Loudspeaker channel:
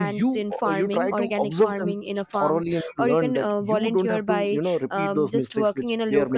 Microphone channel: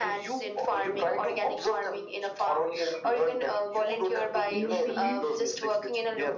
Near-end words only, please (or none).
you feel